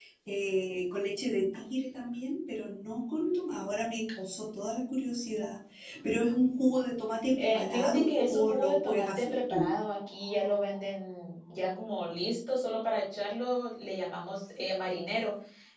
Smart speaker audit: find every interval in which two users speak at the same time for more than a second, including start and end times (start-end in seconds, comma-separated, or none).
7.4-9.7